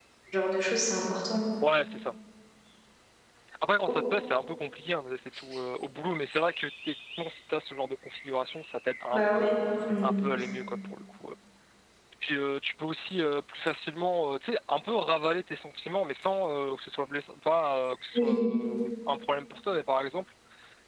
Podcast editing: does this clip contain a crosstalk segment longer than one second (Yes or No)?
No